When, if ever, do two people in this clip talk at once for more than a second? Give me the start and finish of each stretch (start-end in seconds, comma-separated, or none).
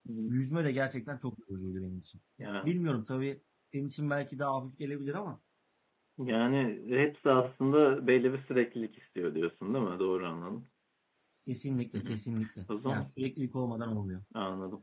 none